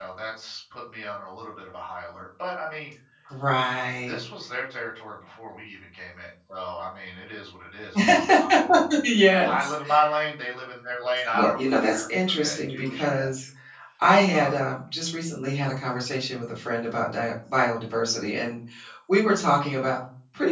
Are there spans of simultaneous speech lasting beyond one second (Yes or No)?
Yes